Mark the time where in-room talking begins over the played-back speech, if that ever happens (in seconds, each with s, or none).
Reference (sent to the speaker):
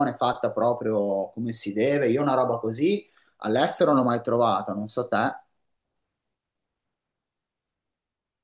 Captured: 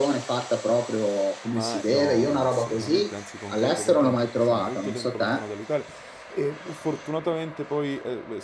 1.4 s